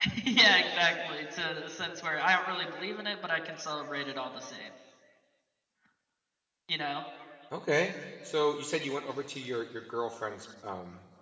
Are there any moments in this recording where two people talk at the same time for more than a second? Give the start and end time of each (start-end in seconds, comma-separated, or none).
none